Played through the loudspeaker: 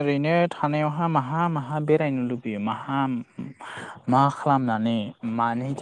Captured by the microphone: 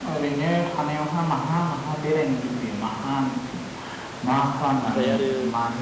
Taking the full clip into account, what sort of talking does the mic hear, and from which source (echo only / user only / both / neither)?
both